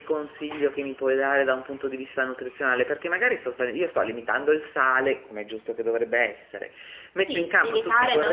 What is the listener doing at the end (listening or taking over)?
taking over